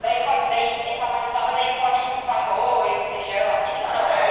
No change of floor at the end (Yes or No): No